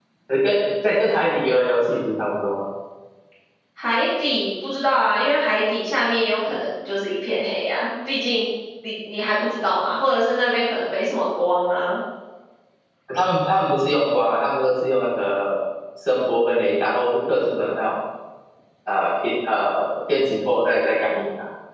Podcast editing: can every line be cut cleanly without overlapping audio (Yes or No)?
Yes